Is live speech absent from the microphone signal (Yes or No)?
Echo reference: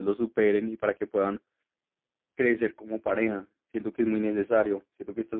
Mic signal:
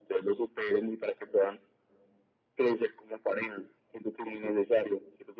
Yes